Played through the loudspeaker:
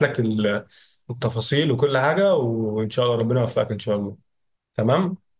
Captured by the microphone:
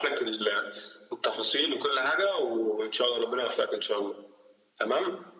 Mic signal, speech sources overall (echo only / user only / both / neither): echo only